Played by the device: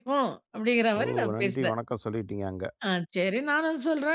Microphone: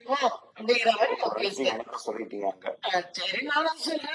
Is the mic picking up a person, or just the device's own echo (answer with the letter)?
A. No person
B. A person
A